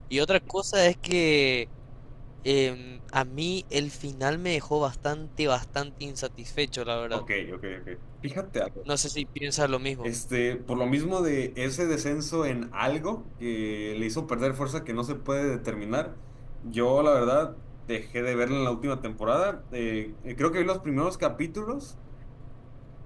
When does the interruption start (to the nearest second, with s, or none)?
none